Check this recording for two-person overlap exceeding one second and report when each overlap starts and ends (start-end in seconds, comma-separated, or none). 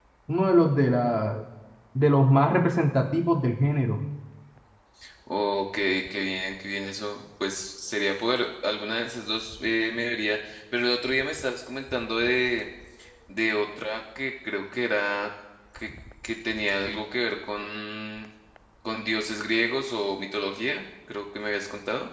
none